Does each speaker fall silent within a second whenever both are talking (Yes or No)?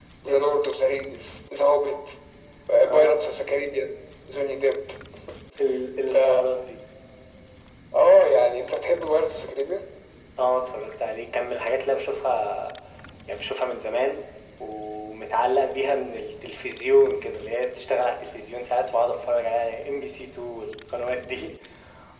Yes